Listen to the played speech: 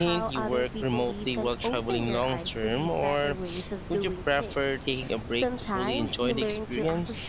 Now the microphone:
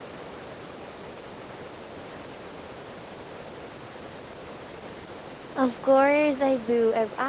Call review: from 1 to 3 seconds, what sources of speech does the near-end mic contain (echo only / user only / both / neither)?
neither